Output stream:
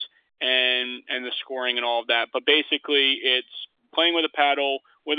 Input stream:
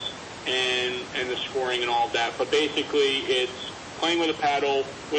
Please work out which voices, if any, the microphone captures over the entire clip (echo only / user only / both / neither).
echo only